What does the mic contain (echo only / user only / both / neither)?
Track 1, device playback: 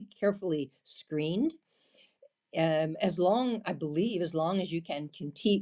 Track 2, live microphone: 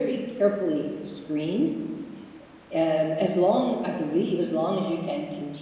echo only